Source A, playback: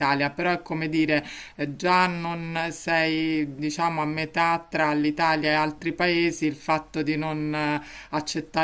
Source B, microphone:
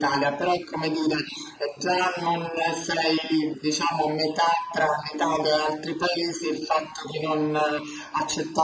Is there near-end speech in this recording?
No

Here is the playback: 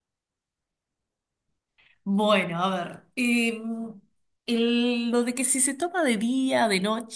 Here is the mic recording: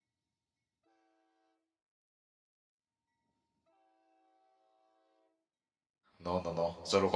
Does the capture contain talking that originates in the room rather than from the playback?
Yes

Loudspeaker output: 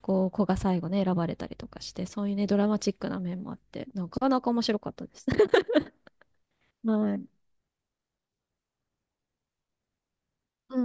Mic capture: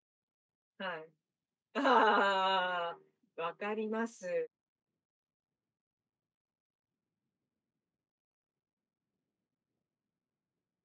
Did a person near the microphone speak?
Yes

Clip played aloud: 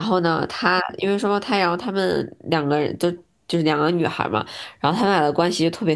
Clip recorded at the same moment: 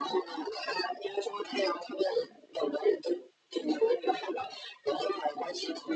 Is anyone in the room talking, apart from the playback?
No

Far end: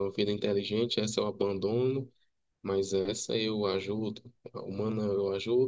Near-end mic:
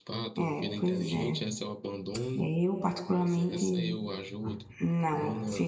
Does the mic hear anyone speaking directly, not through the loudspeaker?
Yes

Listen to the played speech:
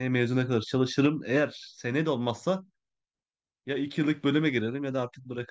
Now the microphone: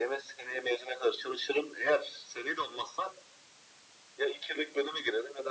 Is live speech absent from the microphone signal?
Yes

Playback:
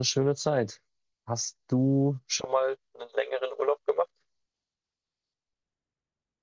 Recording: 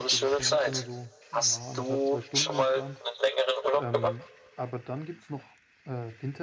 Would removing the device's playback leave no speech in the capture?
No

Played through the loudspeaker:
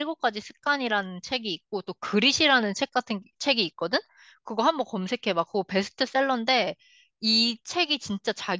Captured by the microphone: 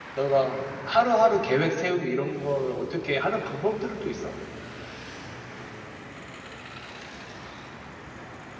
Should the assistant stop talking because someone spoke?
Yes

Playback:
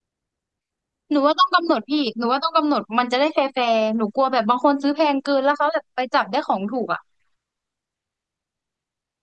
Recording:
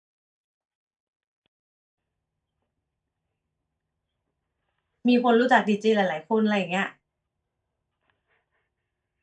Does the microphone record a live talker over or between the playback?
Yes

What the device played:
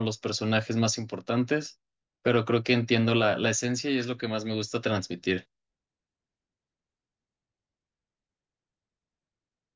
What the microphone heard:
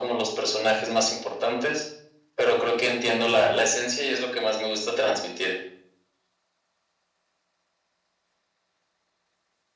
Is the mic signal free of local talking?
Yes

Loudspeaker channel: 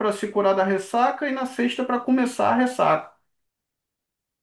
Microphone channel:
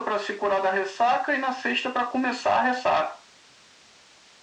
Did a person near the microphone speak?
No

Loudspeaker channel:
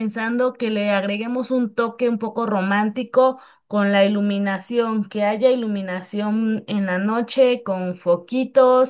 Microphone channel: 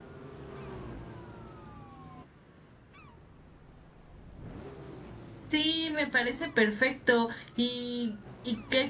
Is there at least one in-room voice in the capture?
Yes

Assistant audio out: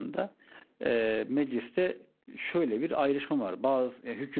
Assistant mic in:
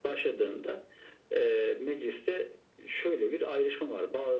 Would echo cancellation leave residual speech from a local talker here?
No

